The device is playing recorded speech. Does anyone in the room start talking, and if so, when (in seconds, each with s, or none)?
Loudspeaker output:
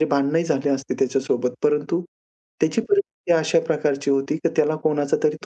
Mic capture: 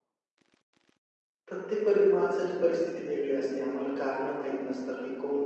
1.5 s